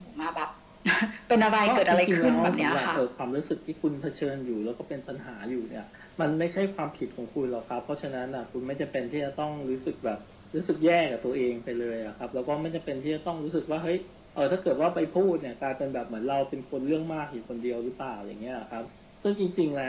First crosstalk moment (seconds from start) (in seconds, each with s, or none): 1.7 s